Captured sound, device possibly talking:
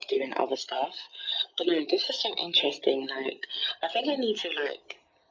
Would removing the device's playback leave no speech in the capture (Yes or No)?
Yes